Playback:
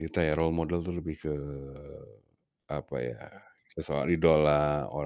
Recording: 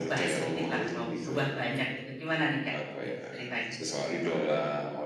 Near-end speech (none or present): present